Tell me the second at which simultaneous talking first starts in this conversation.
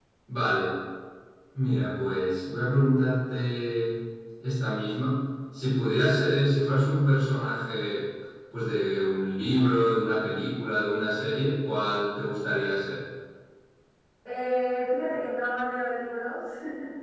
none

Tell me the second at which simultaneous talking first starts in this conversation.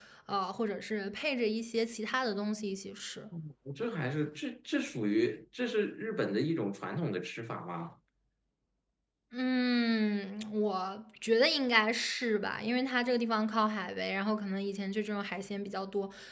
none

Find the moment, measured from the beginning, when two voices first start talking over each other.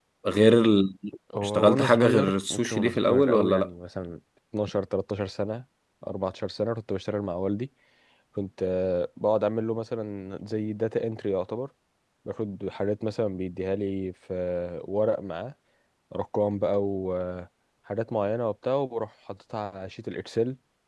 1.4 s

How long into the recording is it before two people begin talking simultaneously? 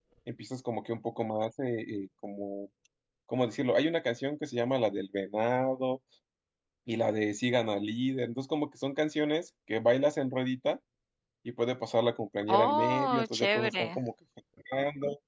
12.5 s

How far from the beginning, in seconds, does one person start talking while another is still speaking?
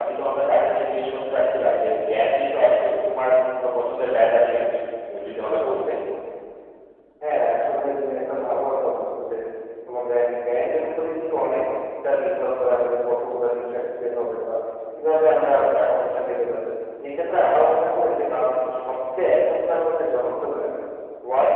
none

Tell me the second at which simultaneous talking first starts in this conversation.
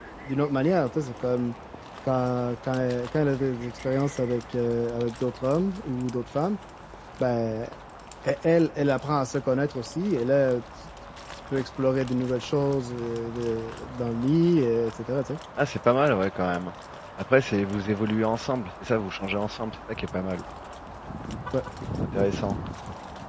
none

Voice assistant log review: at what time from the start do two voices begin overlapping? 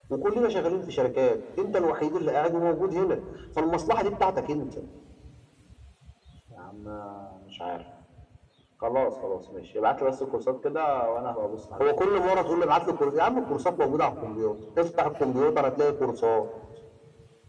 none

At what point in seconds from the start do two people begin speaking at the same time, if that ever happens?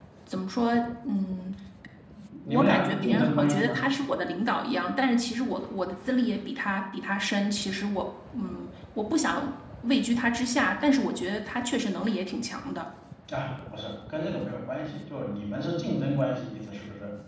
2.5 s

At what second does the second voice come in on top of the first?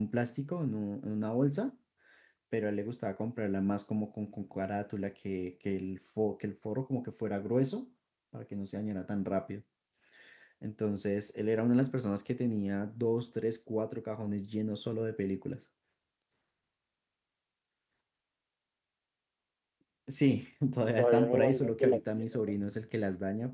20.8 s

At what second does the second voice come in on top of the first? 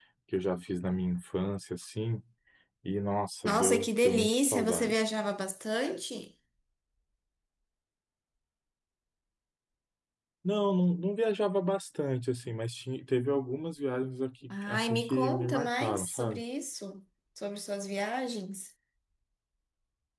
3.5 s

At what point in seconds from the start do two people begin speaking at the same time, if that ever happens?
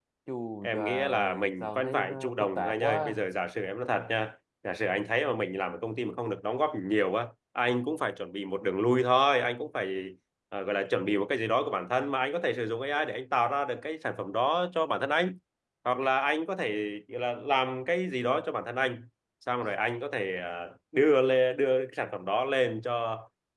0.6 s

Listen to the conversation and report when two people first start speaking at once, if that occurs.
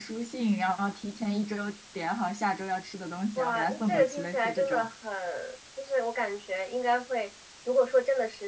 3.4 s

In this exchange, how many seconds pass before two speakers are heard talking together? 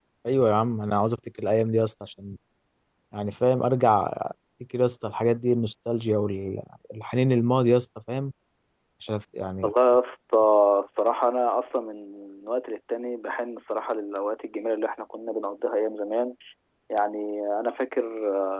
none

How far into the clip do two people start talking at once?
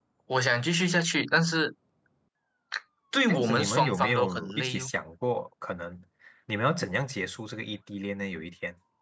3.3 s

